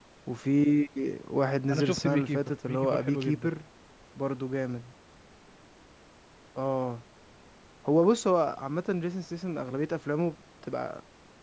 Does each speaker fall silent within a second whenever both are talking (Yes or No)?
No